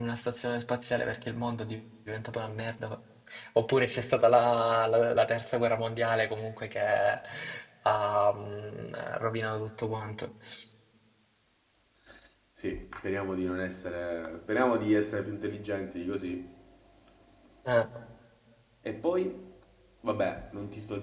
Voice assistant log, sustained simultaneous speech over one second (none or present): none